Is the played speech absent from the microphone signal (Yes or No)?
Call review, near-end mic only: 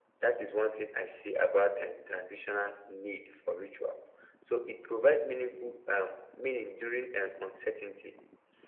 No